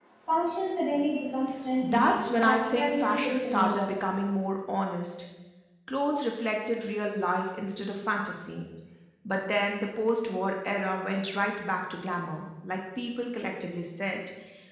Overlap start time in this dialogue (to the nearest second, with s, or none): 2 s